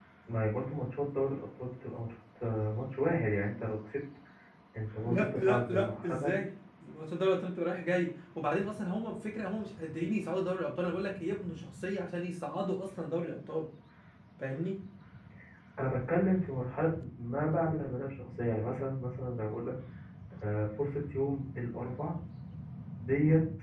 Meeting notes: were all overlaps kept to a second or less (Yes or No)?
No